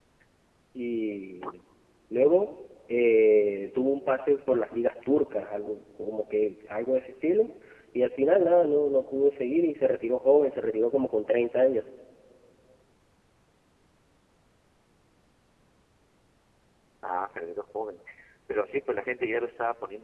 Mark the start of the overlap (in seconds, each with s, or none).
none